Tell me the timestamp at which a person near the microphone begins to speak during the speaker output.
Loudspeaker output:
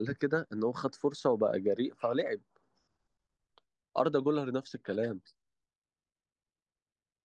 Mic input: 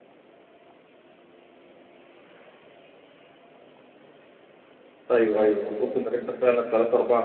5.1 s

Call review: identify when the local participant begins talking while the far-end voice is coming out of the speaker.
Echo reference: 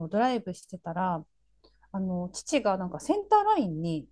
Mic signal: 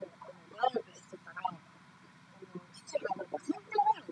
none

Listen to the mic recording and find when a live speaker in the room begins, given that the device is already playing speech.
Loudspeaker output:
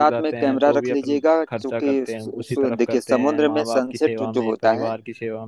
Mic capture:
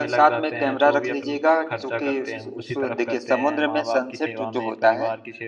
none

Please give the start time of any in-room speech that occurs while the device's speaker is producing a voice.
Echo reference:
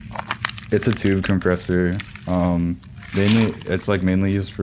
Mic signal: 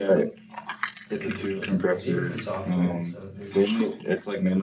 1.0 s

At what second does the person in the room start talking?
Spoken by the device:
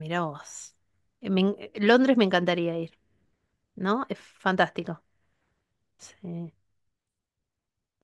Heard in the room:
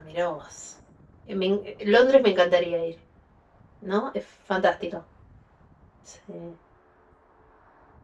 none

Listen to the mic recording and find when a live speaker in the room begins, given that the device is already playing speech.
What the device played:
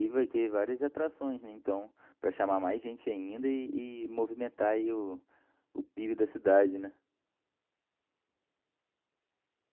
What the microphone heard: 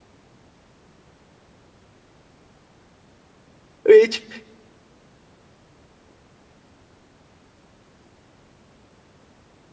3.8 s

